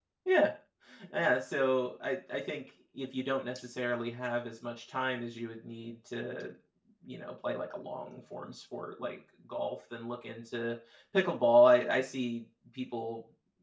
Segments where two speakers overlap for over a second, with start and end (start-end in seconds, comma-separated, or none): none